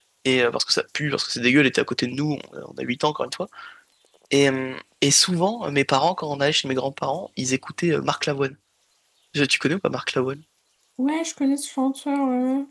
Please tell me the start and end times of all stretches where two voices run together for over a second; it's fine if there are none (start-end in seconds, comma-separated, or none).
none